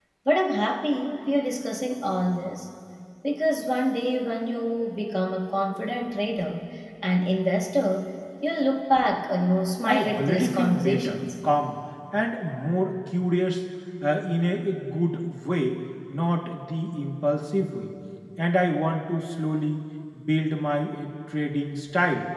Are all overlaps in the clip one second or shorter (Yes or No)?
No